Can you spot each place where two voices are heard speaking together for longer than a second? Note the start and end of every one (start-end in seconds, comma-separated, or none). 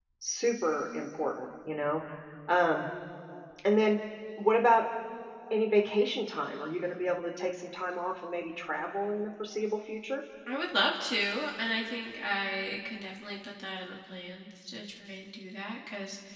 none